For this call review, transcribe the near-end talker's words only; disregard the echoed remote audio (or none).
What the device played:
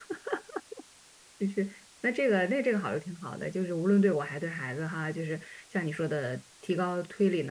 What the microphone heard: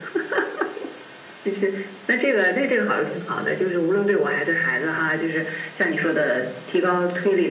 none